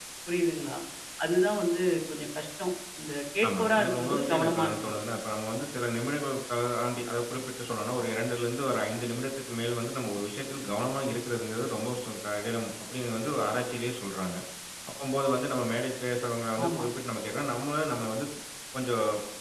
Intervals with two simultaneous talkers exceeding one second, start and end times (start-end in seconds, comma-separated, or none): 3.5-4.9